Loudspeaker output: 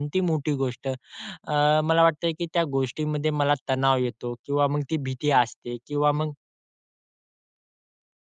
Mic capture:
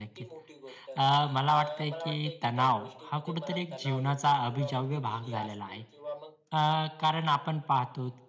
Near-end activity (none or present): present